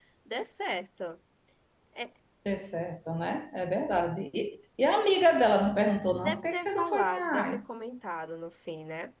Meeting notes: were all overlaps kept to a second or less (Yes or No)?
No